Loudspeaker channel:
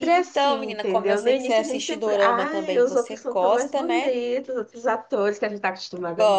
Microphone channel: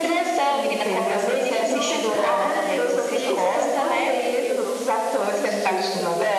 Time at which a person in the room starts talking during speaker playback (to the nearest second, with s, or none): 2 s